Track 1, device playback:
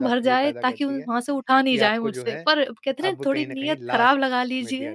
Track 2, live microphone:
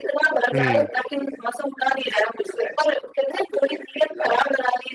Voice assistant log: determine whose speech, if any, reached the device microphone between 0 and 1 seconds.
both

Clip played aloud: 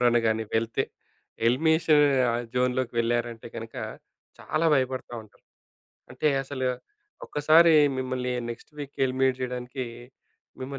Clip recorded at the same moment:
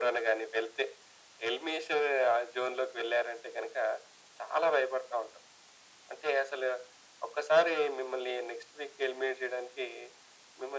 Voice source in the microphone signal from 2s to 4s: echo only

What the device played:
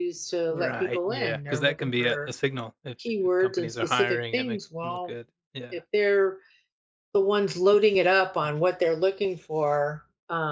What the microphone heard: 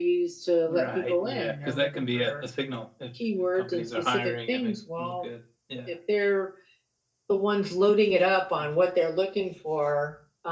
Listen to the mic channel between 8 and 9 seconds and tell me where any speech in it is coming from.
echo only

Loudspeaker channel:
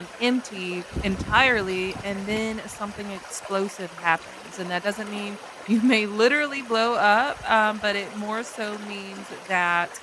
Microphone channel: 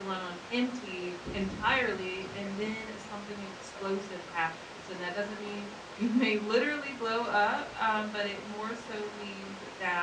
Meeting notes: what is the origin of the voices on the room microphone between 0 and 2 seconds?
echo only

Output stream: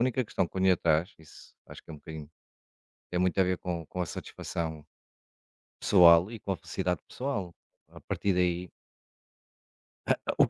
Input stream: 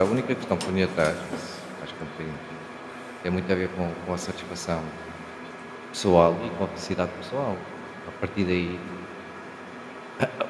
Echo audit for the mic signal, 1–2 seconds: echo only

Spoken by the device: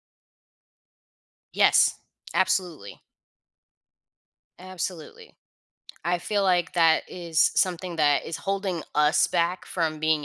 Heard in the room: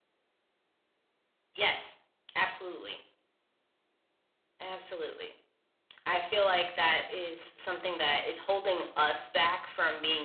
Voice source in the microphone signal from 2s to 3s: echo only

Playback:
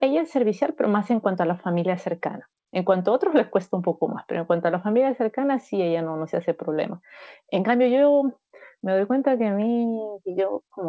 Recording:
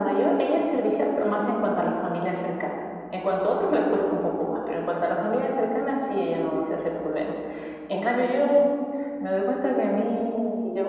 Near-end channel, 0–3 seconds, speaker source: echo only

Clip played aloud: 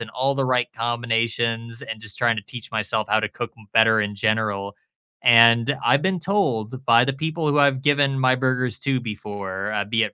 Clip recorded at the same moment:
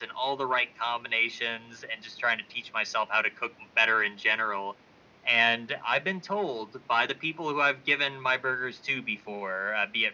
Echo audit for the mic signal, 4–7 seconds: echo only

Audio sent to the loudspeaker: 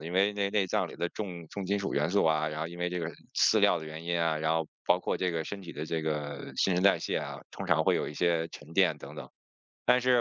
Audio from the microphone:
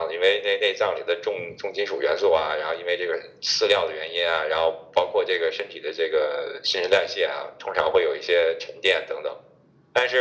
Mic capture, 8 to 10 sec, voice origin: echo only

